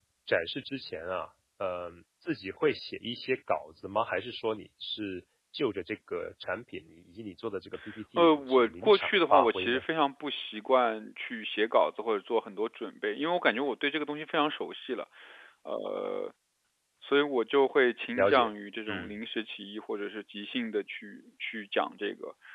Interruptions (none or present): present